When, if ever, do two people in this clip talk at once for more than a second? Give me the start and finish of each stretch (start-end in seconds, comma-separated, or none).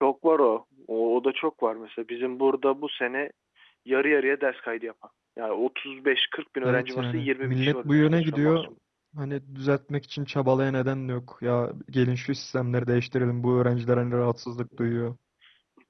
6.6-8.7